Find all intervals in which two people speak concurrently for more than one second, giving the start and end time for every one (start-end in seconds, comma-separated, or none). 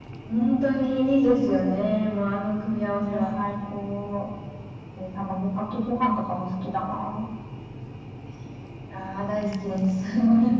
none